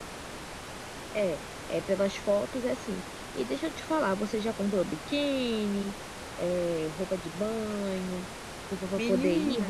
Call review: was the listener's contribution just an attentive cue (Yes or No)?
Yes